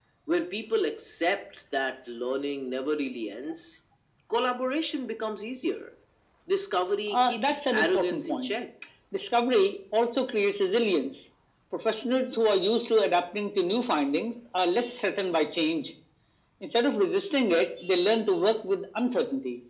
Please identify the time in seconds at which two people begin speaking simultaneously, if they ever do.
7.1 s

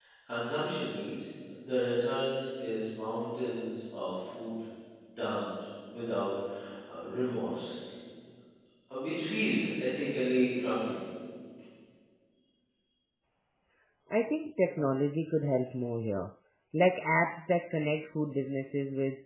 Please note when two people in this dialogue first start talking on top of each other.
none

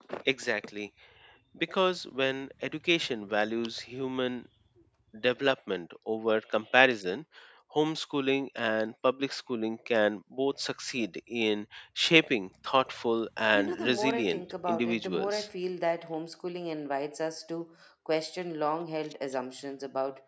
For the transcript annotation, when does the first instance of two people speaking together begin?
13.5 s

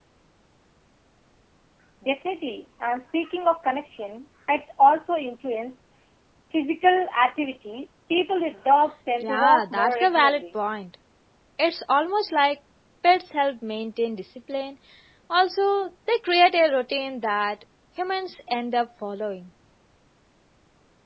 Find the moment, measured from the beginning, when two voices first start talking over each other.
9.2 s

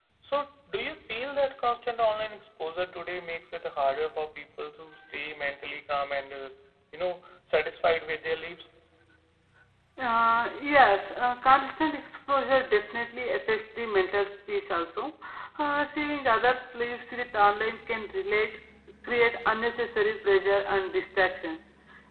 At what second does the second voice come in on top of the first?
none

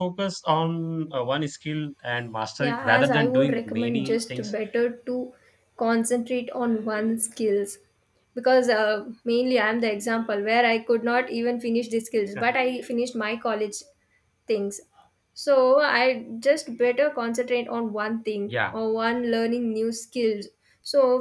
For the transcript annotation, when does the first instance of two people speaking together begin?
2.6 s

